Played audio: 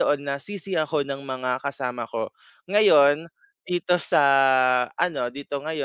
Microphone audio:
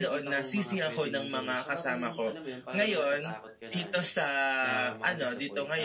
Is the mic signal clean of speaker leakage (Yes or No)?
No